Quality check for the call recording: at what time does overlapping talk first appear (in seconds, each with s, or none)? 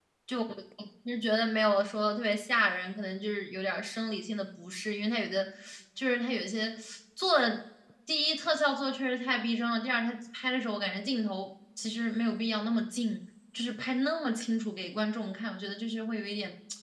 none